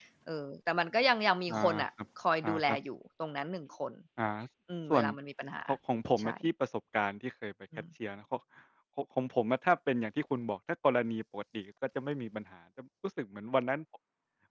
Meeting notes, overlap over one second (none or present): none